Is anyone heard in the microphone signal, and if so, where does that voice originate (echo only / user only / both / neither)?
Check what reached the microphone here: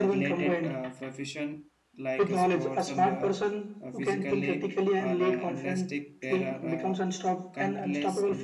both